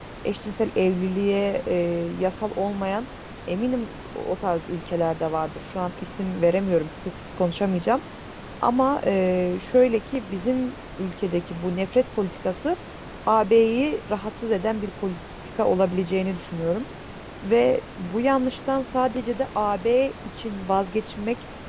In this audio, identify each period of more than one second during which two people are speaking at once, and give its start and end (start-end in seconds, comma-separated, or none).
none